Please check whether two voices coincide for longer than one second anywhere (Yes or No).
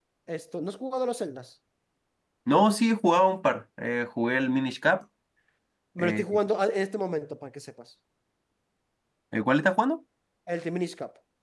No